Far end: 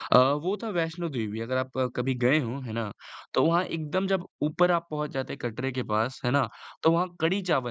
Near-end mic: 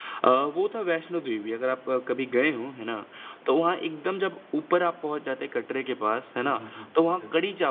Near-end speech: present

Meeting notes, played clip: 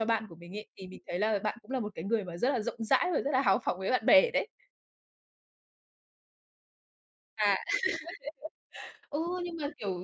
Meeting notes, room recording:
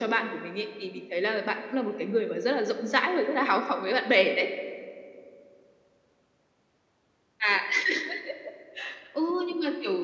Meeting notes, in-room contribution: none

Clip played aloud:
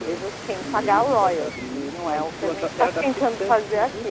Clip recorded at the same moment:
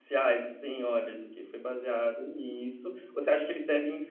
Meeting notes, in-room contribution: present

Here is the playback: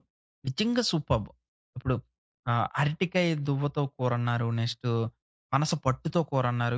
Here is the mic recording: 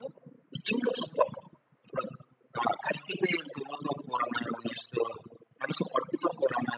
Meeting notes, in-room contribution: none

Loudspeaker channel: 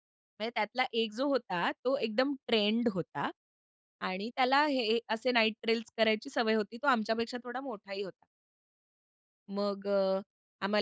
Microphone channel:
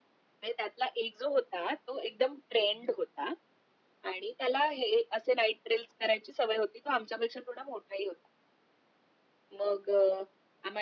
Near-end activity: none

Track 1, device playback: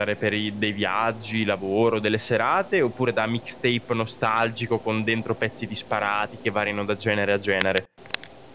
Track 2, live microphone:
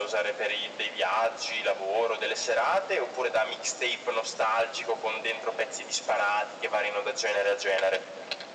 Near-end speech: none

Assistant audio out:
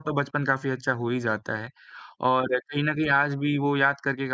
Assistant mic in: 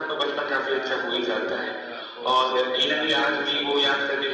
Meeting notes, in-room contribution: present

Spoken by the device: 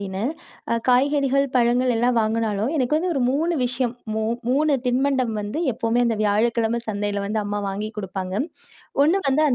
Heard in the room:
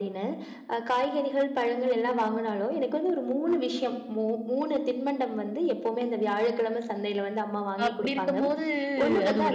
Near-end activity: present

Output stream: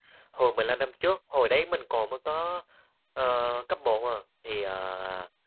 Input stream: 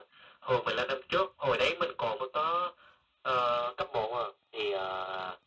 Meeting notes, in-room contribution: none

